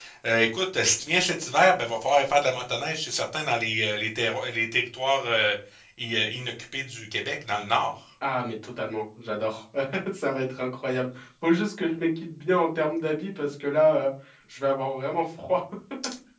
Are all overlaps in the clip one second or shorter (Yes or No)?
Yes